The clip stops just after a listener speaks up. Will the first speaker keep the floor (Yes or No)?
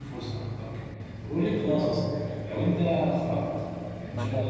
Yes